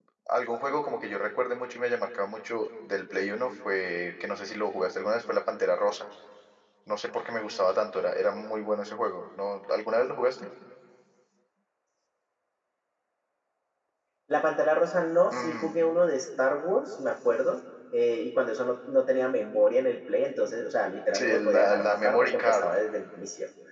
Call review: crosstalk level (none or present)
present